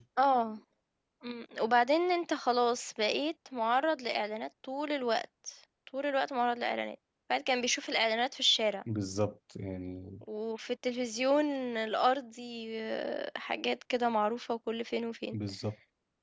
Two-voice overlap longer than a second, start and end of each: none

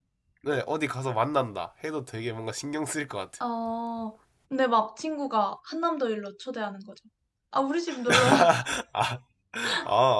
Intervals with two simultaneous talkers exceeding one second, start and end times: none

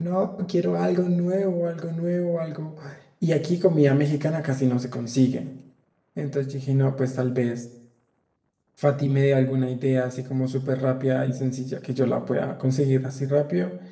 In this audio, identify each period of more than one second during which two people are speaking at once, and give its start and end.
none

